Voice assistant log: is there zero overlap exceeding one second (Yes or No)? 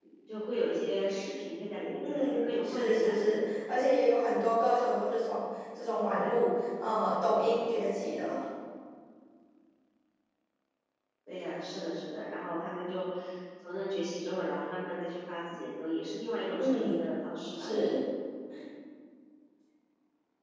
No